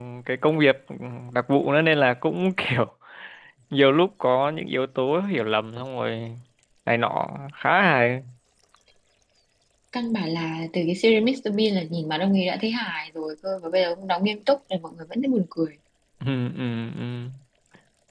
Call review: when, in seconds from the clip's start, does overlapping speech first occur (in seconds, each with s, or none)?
none